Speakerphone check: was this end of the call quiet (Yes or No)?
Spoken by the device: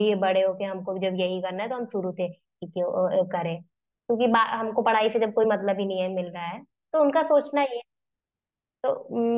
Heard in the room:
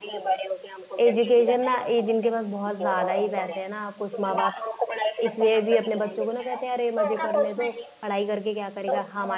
No